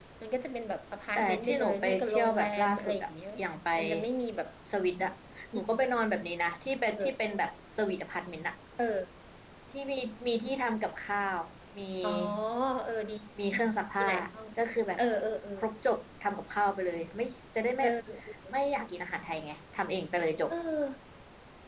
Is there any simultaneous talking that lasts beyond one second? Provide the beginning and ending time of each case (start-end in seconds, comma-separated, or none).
1.1-3.1